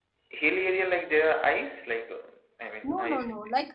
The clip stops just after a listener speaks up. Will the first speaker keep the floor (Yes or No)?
No